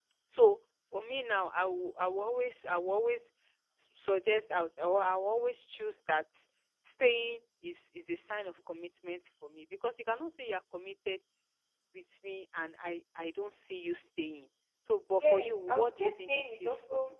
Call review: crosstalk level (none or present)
present